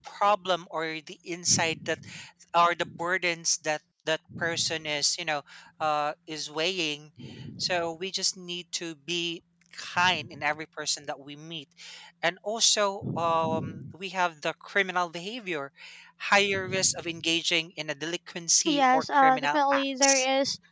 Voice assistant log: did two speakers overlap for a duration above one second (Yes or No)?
Yes